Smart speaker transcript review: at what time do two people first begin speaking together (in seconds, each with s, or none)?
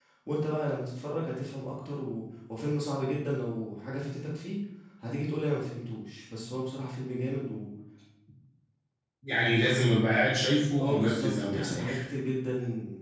10.8 s